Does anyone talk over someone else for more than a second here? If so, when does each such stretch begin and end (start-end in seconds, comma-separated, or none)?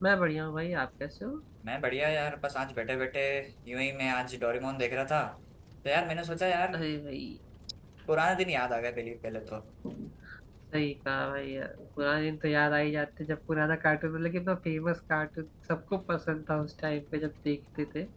none